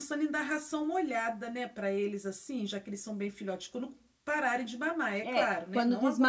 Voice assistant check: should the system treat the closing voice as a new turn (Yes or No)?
Yes